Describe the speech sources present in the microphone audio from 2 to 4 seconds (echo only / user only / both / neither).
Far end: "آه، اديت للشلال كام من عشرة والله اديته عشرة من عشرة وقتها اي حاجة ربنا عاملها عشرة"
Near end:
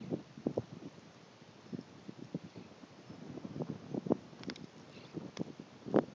neither